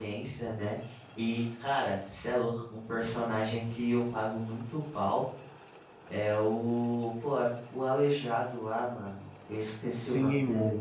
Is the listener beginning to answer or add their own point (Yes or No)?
Yes